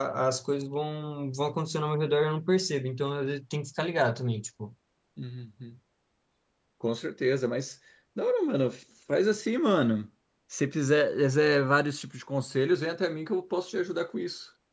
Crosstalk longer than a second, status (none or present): none